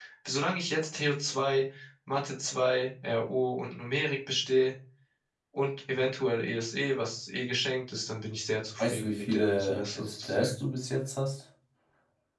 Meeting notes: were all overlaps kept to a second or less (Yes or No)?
No